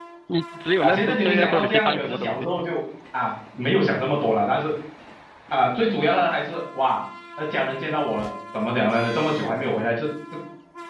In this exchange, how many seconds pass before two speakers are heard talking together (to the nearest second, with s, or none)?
1 s